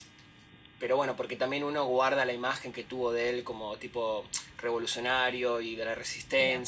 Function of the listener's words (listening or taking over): taking over